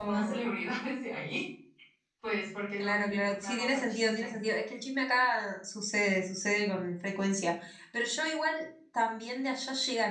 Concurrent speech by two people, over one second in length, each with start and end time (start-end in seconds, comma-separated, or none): 2.8-4.3